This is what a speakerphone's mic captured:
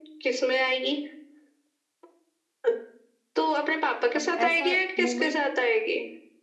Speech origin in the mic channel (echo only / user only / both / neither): both